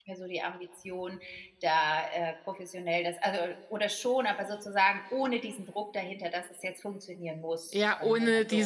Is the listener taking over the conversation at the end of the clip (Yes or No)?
Yes